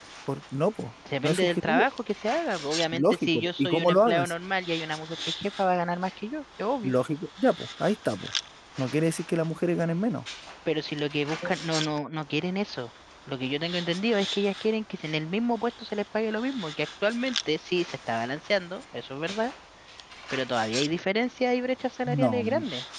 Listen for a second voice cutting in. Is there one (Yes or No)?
Yes